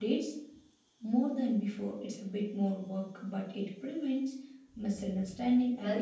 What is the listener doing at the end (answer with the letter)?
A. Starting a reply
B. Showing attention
A